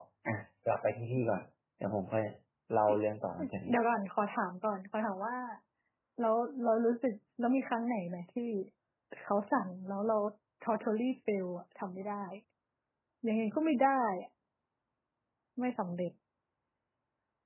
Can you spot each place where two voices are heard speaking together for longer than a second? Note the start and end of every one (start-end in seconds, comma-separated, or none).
none